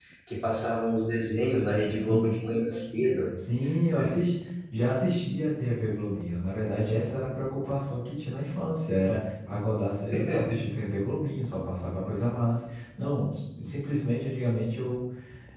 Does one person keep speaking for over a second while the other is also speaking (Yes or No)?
No